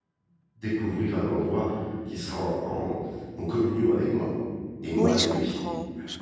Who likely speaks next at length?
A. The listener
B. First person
A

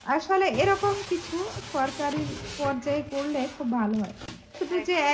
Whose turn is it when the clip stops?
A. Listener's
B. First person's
B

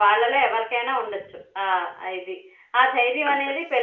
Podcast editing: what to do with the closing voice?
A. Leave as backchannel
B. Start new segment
A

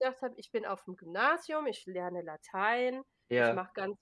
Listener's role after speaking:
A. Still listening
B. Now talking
A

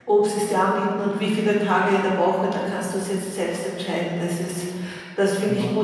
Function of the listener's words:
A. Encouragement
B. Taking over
A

